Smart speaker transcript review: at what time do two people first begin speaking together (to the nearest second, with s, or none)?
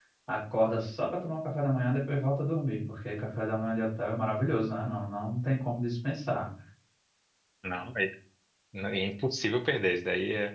none